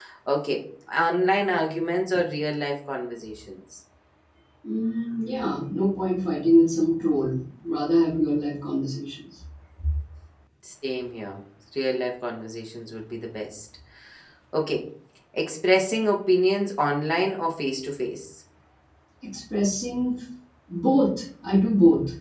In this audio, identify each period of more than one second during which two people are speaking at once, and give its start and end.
none

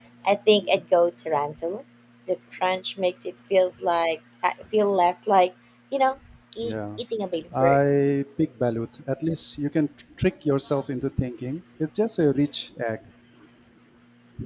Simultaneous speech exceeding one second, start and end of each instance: none

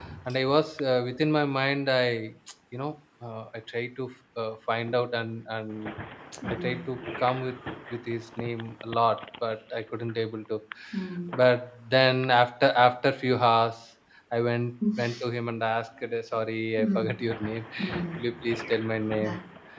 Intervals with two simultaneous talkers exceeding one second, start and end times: none

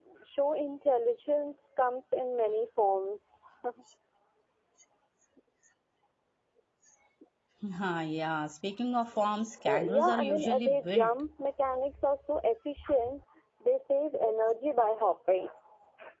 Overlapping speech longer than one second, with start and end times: 9.7-11.1

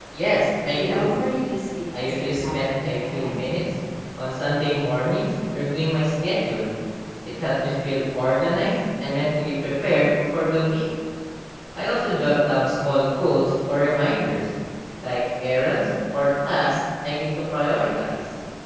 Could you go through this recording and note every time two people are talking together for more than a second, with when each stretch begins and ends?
1.9-3.4

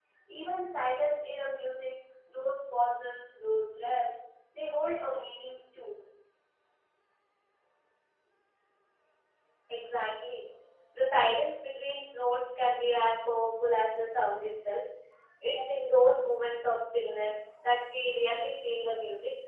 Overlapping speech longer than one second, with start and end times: none

